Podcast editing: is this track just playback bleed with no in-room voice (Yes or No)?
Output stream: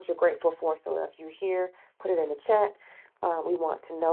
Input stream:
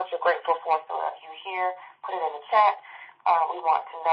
Yes